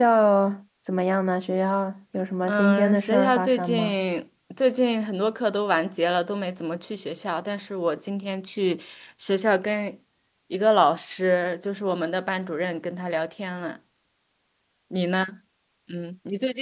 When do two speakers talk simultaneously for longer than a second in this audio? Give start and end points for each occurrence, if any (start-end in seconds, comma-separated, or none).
2.4-3.9